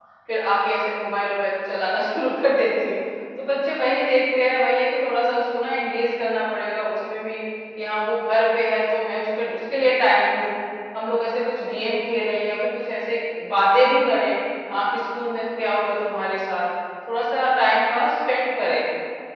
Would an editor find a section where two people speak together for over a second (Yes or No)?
No